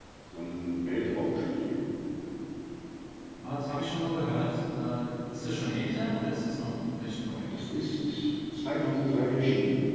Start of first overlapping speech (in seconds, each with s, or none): none